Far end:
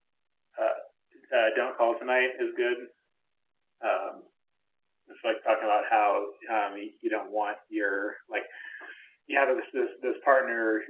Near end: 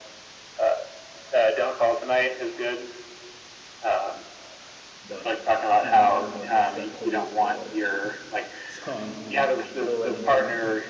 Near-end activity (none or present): present